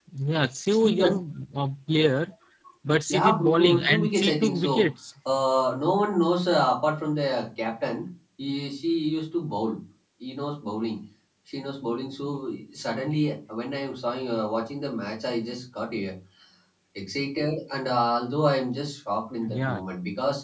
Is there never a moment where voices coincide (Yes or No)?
No